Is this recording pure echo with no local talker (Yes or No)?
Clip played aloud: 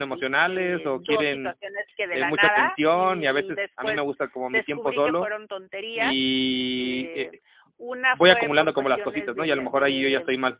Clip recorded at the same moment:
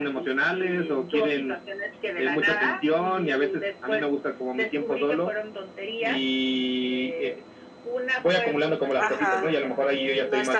No